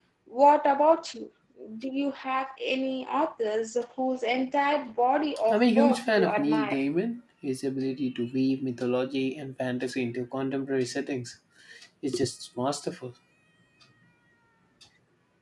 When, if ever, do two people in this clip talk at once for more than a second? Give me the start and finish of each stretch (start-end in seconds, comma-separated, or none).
5.5-6.8